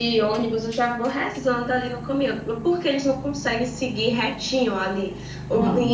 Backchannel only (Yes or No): Yes